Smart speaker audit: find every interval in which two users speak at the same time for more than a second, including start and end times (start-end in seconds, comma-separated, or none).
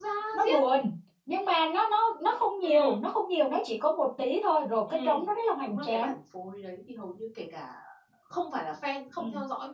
none